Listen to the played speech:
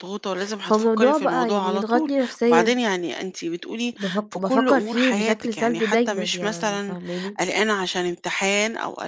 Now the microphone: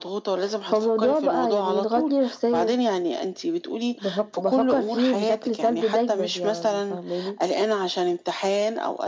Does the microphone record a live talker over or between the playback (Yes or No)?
No